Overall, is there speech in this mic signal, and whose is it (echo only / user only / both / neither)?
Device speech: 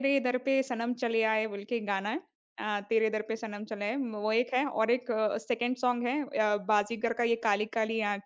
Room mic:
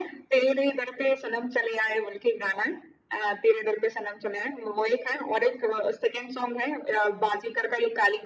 echo only